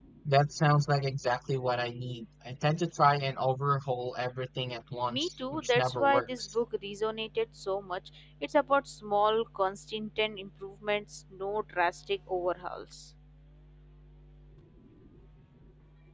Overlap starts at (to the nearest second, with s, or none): 5 s